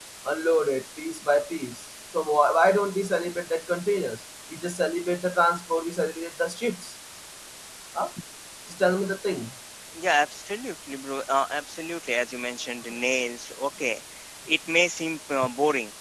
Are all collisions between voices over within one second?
Yes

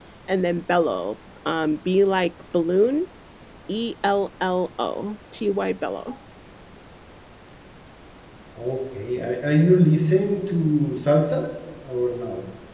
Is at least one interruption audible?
No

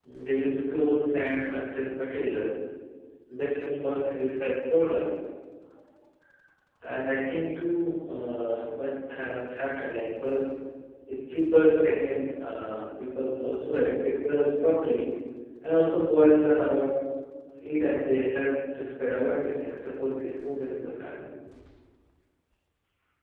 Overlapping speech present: No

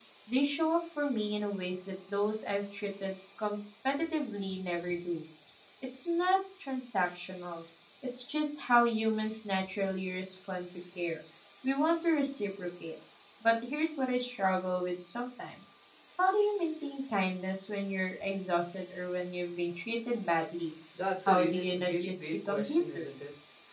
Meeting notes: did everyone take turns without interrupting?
No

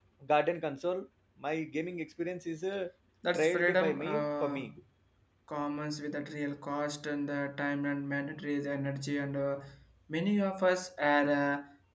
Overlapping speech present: Yes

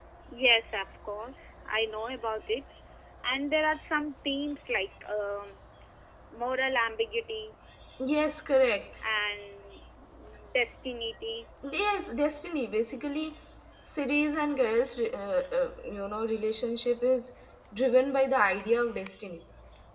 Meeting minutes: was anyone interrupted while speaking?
No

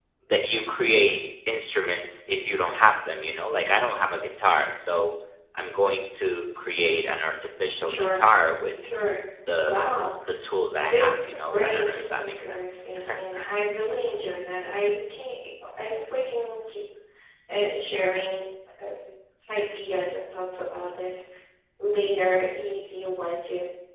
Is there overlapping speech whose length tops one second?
Yes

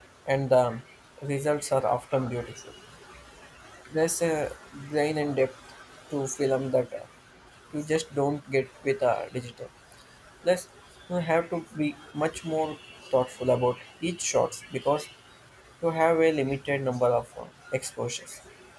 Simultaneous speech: No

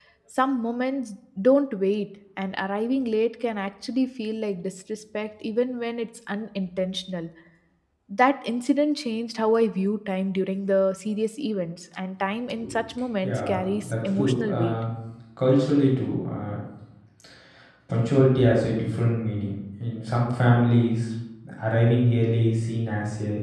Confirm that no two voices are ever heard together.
No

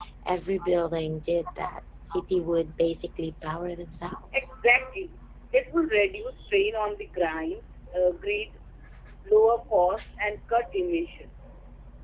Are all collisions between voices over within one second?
Yes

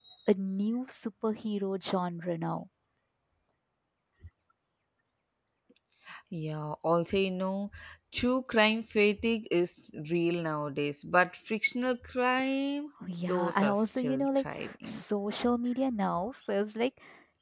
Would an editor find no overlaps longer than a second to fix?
No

